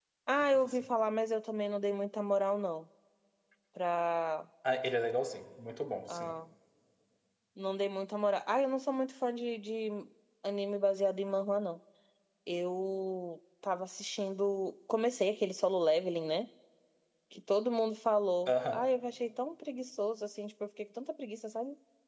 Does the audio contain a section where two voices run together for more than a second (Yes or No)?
No